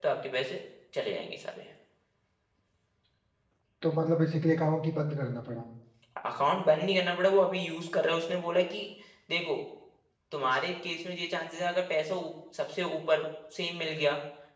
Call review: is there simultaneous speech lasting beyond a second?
No

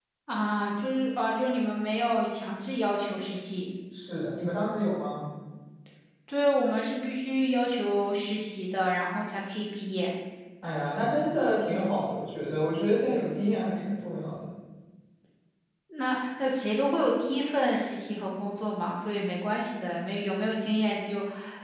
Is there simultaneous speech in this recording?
No

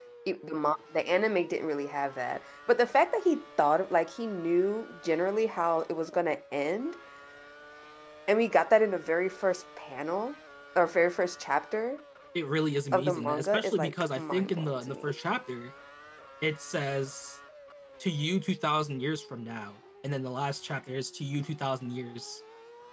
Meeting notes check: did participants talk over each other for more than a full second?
Yes, from 12.9 s

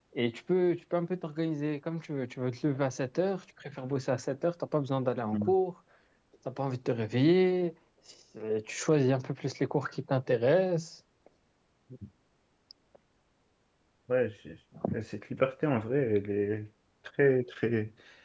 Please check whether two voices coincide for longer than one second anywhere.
No

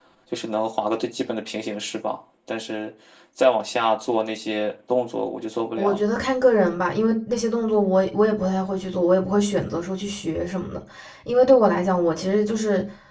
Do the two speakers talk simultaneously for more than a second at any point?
No

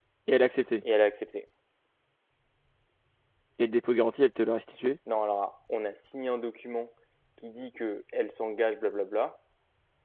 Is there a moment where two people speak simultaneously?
No

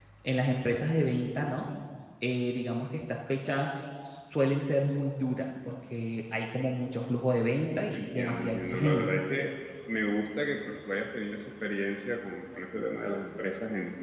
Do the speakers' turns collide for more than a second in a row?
Yes, from 7.9 s

